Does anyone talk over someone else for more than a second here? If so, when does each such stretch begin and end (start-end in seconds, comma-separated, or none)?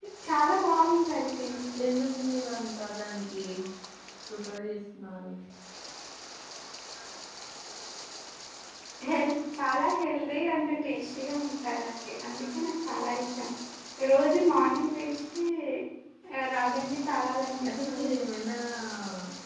none